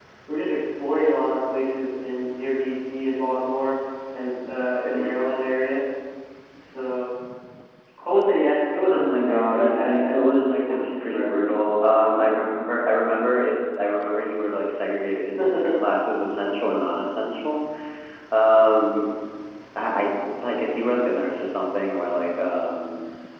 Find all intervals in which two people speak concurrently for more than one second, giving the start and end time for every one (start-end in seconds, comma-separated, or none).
8.9-11.4